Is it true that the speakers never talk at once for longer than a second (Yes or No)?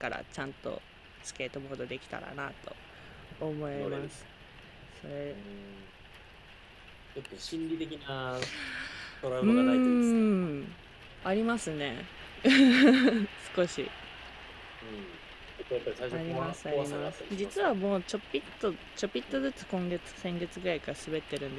No